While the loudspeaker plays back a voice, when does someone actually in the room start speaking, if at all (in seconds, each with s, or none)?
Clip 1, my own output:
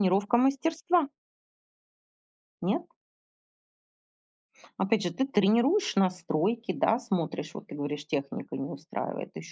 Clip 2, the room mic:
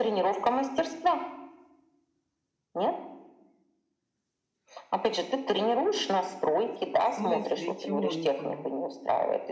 7.0 s